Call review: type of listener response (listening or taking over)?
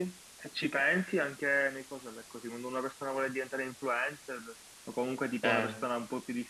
listening